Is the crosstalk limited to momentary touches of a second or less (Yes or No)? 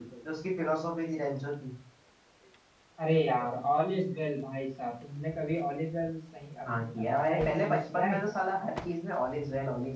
No